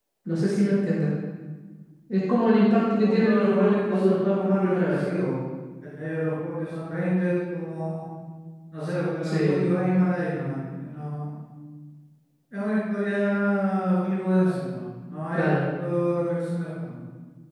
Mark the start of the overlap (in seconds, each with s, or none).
3.0 s